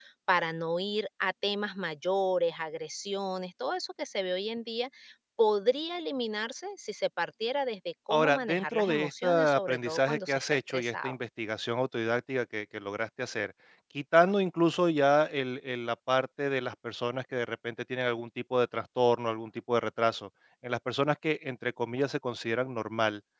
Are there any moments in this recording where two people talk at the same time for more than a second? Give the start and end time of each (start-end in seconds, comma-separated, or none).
8.1-11.1